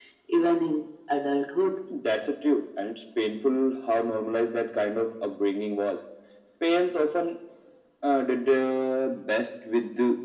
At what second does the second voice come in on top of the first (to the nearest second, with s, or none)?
none